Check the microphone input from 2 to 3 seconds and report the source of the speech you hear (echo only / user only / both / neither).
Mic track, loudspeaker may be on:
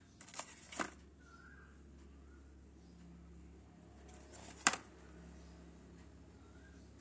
neither